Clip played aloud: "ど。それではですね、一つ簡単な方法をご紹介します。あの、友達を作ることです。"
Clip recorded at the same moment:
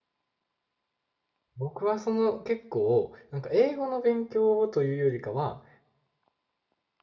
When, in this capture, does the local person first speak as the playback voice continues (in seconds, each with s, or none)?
1.6 s